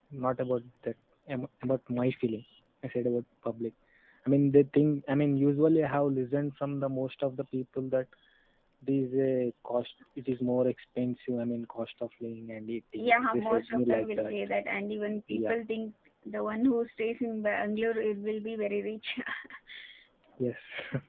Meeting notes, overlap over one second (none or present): present